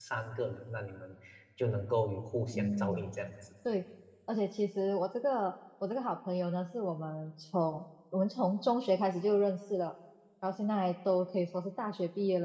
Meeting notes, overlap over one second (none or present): none